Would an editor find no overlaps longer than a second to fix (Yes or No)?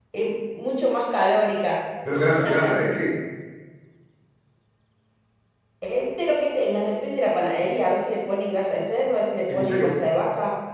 Yes